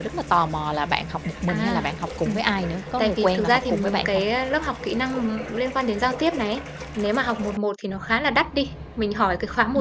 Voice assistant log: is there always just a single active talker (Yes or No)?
No